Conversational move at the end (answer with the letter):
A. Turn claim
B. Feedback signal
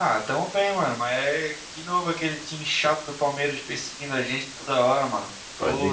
B